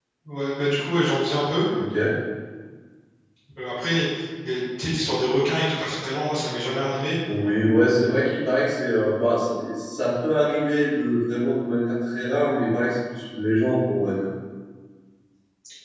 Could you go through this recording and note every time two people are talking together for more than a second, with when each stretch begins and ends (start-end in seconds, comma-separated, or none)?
none